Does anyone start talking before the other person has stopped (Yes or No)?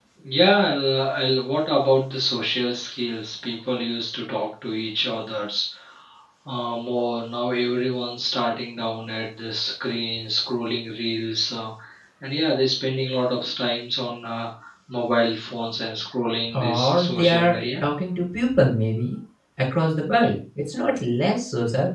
Yes